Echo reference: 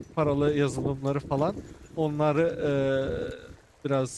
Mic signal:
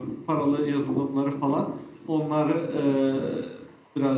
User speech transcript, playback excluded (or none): none